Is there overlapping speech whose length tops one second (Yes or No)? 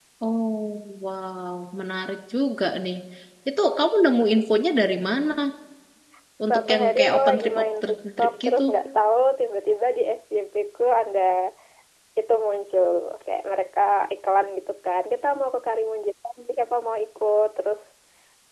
Yes